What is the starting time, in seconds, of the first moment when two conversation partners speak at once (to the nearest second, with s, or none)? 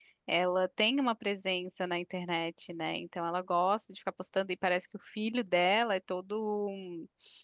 none